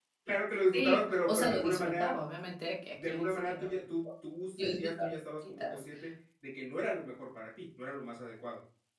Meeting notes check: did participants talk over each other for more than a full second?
Yes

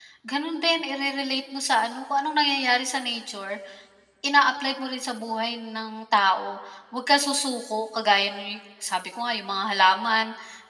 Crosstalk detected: No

